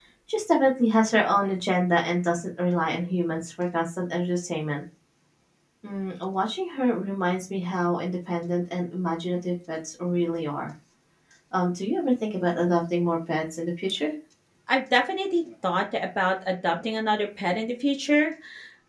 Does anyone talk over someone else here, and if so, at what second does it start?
none

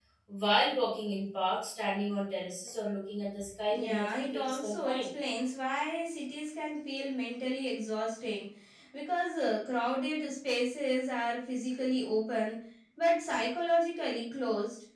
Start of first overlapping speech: 4 s

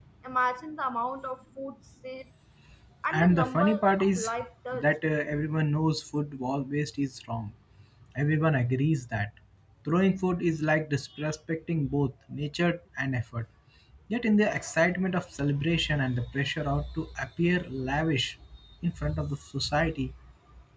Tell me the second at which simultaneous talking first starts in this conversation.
3 s

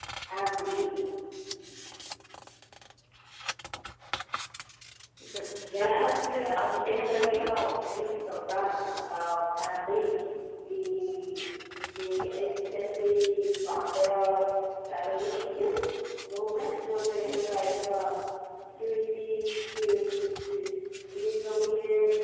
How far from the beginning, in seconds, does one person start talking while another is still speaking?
6 s

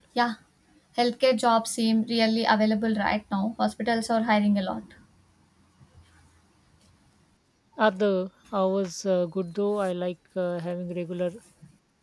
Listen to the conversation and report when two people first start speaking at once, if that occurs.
none

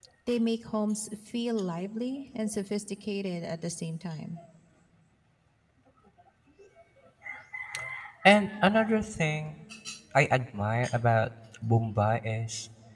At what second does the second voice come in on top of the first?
none

